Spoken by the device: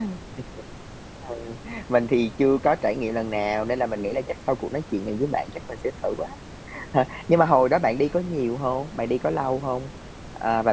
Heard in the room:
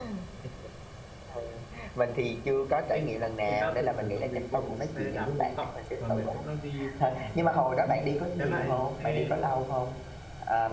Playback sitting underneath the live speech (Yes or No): No